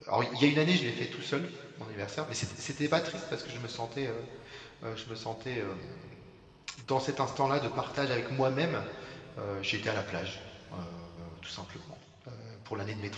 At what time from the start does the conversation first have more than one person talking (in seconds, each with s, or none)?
none